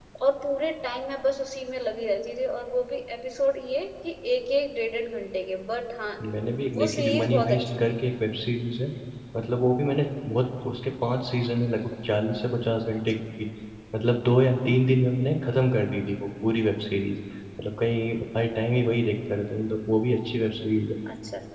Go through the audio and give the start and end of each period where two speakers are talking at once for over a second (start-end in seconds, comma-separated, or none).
6.8-8.0